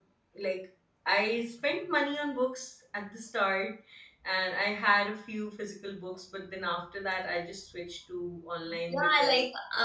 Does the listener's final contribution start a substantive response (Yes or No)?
Yes